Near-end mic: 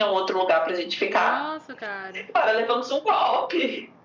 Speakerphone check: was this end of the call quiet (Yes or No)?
No